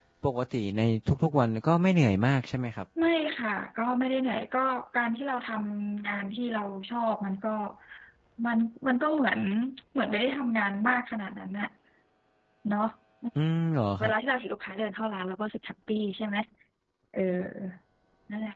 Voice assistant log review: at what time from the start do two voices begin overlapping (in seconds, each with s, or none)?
none